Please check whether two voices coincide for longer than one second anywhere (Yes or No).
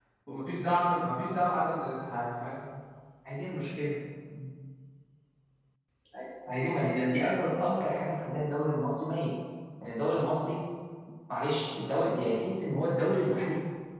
No